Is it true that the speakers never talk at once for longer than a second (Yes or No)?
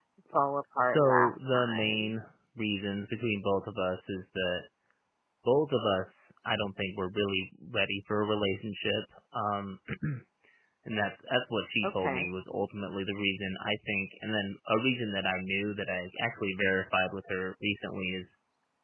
No